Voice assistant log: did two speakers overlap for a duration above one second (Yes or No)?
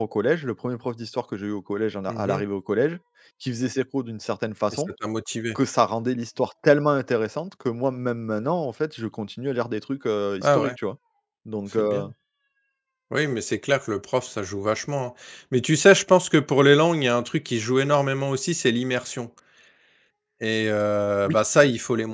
No